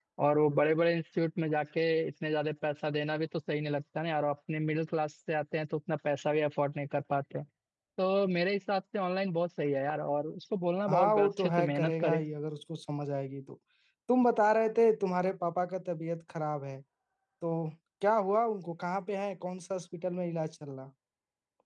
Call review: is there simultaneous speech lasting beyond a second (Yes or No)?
Yes